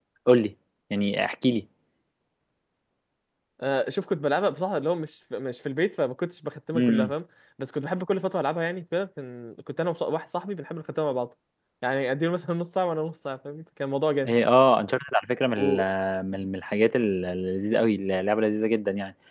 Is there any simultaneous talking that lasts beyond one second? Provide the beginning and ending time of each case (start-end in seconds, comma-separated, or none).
none